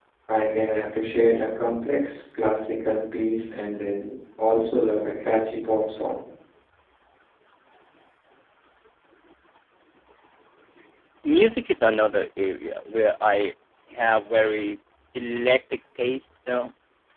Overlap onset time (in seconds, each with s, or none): none